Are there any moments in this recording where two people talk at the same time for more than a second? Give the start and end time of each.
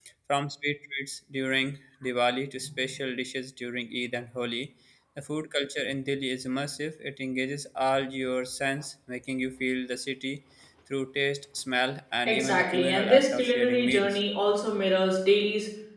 12.2-14.2

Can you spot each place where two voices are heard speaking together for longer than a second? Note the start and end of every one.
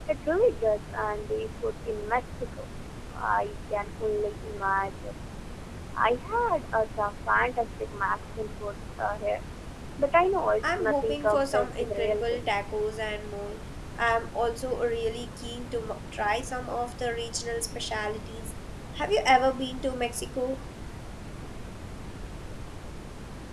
10.6-12.6

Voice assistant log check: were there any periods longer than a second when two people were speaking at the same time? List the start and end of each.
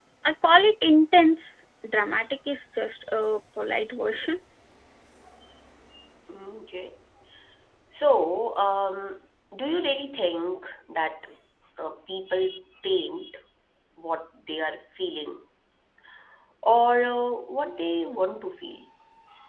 none

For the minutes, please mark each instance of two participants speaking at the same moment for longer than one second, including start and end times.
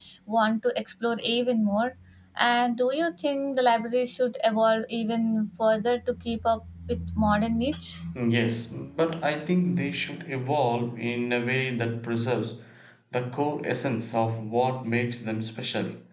none

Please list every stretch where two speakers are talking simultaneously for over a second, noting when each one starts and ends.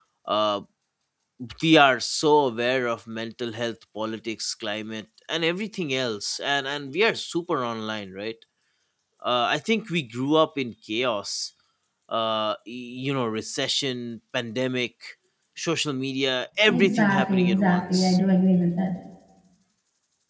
16.7-18.2

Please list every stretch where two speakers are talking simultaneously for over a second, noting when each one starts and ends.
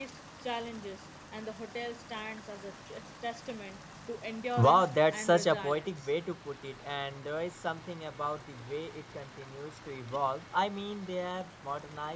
4.6-6.1

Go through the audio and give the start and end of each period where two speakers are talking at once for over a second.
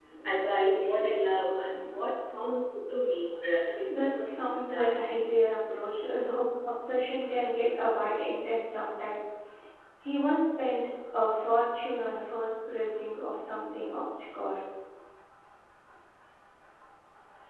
3.9-5.2

